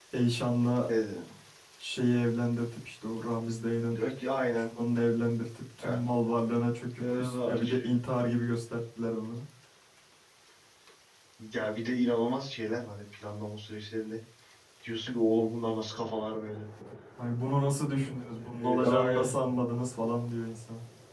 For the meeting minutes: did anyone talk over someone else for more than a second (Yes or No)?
Yes